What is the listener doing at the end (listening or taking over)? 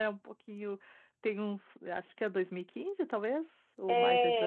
taking over